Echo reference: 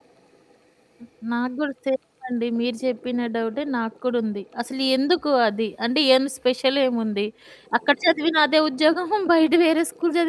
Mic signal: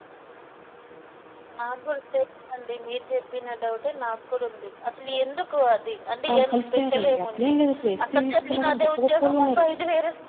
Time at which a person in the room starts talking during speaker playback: 6.3 s

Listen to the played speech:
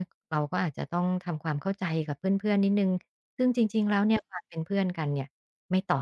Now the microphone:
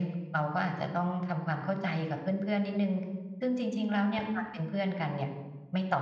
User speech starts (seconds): none

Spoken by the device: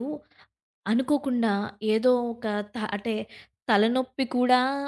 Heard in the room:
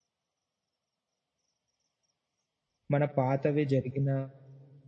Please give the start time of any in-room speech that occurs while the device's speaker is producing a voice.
2.9 s

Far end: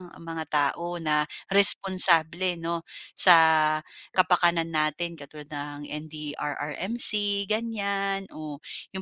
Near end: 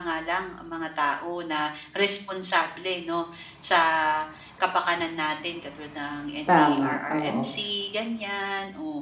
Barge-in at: 6.4 s

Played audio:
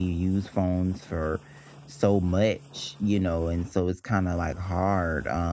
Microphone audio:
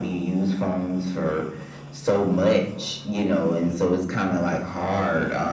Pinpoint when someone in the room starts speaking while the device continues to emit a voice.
none

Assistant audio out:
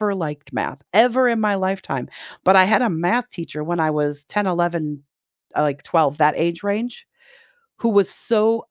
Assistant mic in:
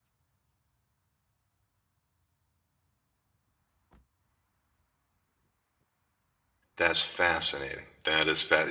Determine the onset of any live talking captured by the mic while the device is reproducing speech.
6.8 s

